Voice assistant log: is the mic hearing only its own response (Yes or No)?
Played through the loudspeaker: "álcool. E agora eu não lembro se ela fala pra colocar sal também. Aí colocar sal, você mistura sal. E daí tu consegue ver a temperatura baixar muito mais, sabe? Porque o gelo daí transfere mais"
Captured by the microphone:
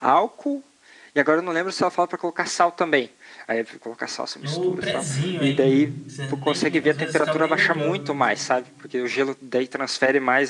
No